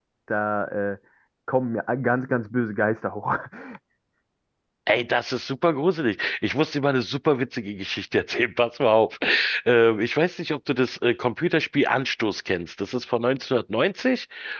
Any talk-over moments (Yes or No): No